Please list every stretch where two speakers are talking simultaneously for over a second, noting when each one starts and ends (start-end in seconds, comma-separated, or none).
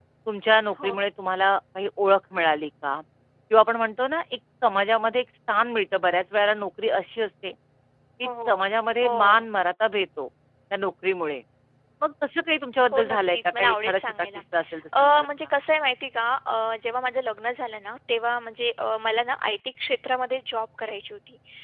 12.9-14.3